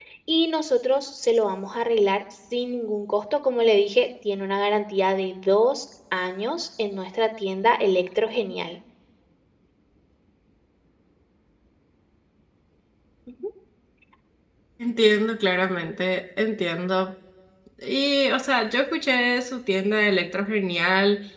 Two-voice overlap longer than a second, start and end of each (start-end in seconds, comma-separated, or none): none